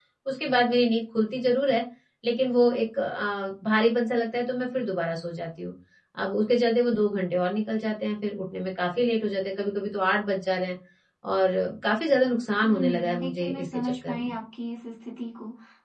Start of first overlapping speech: 13 s

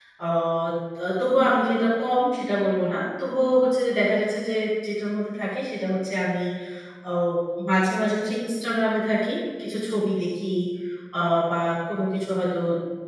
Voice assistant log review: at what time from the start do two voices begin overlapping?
none

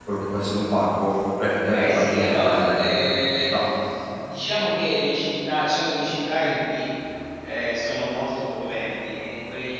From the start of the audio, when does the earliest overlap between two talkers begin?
2 s

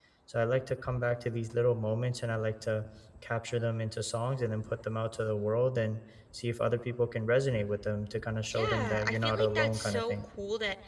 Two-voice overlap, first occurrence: 9 s

